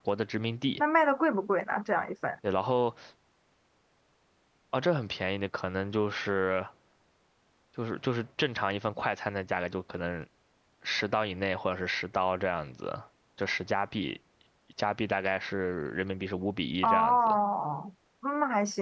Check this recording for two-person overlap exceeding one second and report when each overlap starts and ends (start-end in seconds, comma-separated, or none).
none